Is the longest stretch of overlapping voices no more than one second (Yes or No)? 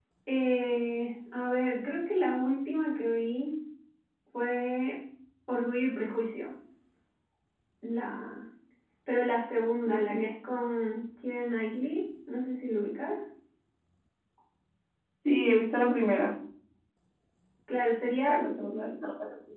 Yes